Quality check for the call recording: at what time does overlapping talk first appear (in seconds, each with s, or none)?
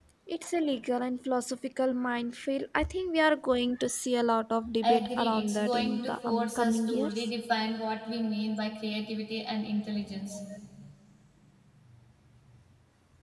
4.8 s